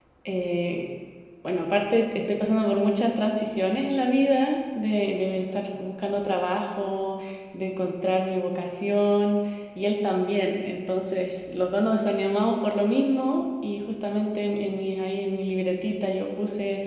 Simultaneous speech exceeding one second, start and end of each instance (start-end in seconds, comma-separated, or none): none